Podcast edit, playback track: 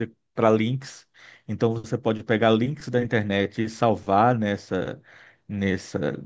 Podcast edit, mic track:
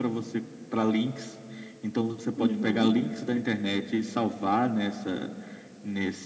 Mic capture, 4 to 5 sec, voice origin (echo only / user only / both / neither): echo only